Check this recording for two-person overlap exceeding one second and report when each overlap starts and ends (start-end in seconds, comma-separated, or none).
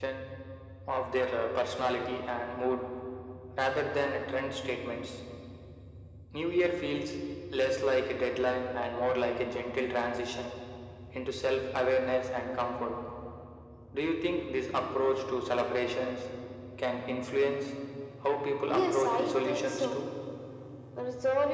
18.8-20.0